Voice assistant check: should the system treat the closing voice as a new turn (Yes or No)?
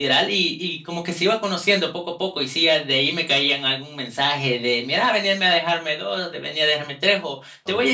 No